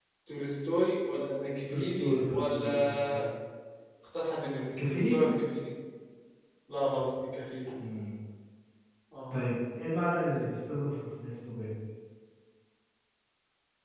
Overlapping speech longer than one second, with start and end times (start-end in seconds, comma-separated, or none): 1.7-3.2